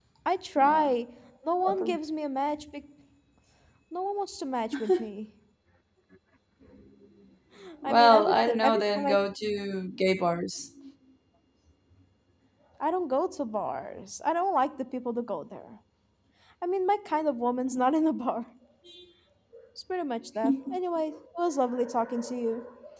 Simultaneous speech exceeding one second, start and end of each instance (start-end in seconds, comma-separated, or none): 7.8-9.2